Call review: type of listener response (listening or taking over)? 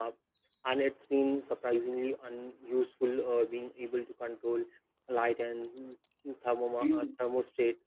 listening